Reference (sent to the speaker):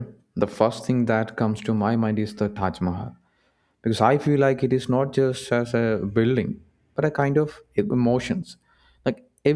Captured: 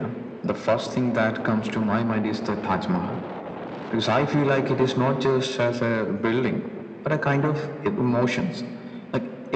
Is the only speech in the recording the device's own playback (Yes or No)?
Yes